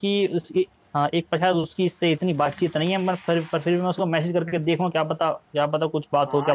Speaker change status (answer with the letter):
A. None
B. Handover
B